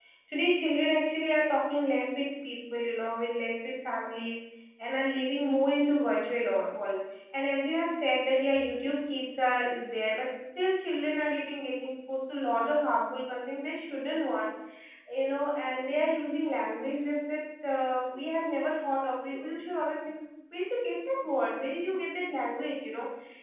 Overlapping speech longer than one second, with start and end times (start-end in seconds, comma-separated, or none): none